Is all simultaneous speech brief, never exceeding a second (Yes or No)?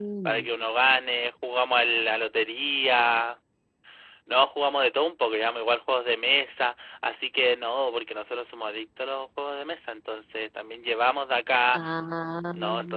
Yes